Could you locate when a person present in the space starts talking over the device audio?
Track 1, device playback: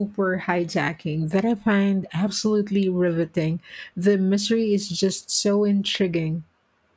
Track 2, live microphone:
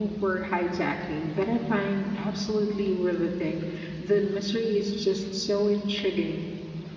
none

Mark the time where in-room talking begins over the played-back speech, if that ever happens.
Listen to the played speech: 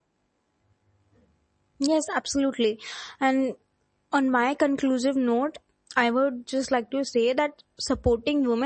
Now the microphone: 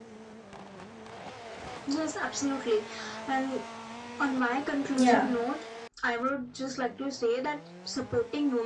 4.9 s

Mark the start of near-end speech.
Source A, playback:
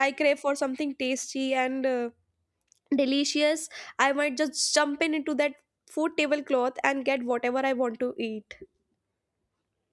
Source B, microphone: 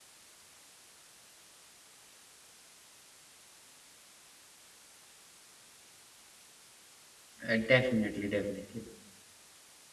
7.5 s

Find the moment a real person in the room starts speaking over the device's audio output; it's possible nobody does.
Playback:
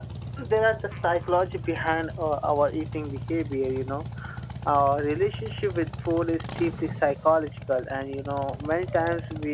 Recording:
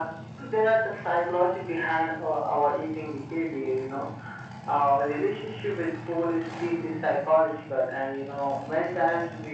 none

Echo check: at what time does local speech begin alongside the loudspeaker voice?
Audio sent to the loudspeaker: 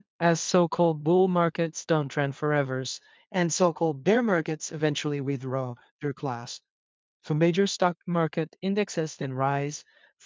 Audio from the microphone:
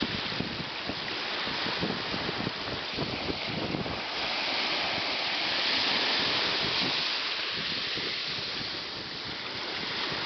none

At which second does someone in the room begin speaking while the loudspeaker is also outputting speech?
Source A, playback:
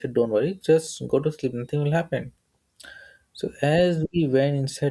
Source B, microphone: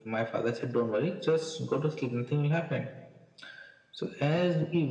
none

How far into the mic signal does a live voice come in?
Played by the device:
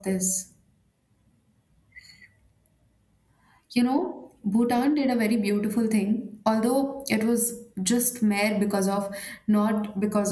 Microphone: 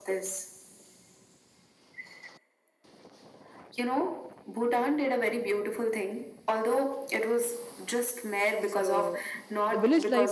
8.6 s

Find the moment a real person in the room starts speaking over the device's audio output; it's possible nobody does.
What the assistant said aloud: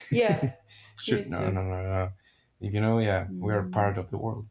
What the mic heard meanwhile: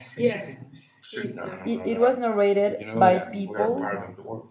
1.6 s

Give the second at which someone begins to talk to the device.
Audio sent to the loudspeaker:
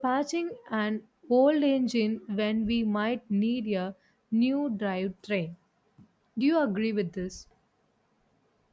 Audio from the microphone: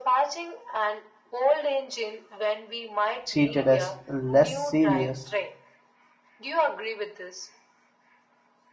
3.2 s

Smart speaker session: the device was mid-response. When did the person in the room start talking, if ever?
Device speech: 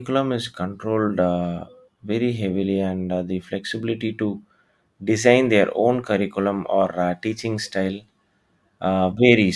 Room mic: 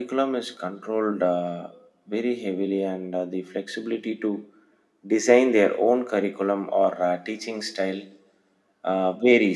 none

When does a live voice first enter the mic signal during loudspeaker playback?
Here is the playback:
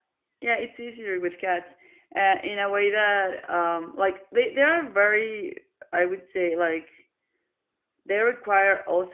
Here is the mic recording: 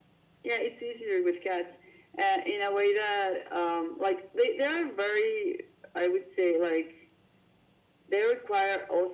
none

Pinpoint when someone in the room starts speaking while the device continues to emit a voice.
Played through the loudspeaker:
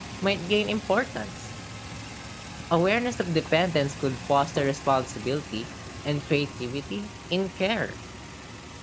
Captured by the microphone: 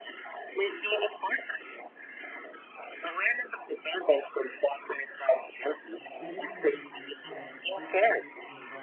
6.0 s

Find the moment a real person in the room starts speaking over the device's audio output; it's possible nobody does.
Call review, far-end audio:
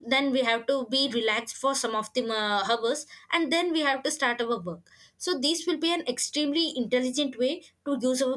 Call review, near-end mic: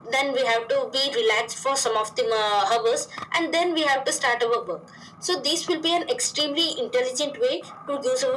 none

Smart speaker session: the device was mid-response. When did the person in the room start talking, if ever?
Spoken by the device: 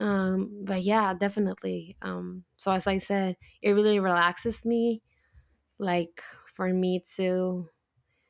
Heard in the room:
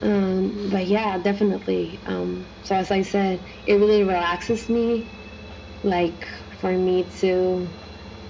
none

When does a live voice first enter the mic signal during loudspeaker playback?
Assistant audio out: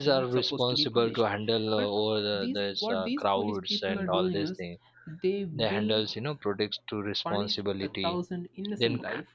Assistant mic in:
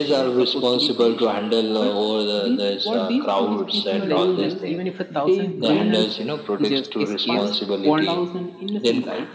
4.0 s

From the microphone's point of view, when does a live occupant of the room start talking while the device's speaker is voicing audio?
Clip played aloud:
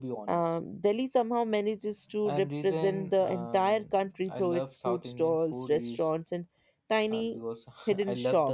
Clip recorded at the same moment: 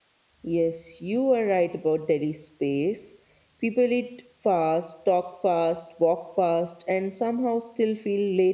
0.4 s

